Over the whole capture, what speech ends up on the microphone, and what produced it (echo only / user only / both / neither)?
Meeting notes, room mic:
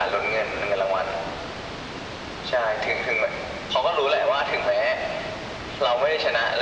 echo only